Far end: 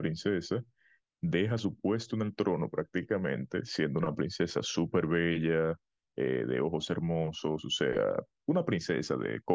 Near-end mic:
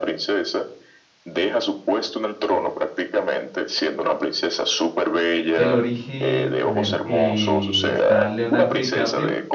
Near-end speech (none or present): present